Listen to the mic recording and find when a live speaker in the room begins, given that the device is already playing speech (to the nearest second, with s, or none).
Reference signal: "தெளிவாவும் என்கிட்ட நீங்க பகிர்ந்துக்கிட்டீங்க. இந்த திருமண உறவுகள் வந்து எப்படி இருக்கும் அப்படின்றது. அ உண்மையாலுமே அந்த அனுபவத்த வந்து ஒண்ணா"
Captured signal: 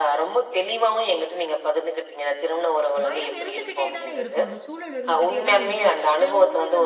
3 s